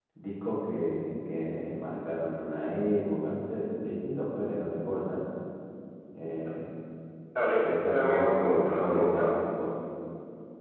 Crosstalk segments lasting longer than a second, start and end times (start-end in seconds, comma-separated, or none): 7.6-9.3